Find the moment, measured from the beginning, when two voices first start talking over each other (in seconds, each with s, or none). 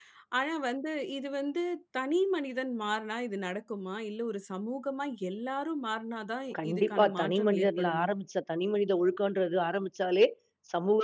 6.5 s